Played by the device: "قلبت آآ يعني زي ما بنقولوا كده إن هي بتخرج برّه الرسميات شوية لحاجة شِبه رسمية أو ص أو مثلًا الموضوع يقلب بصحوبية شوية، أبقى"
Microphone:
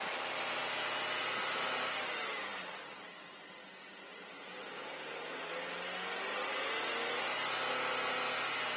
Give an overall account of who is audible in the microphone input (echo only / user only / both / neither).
neither